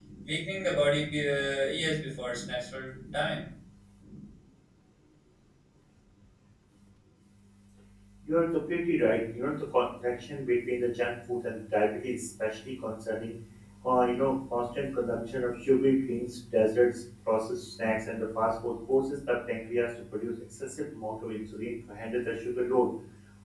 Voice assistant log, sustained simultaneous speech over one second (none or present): none